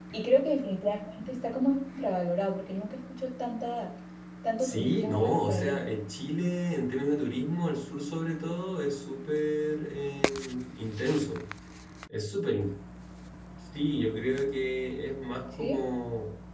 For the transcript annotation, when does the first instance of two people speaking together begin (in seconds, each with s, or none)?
4.6 s